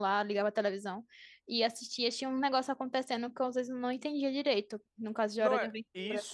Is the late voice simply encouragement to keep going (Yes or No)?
No